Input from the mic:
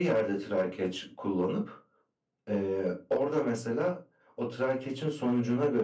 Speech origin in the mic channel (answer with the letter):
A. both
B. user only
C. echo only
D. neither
C